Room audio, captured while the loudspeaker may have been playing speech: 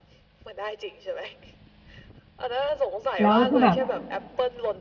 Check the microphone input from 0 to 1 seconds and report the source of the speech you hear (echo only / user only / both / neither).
echo only